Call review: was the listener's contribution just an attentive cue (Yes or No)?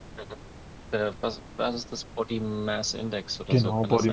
No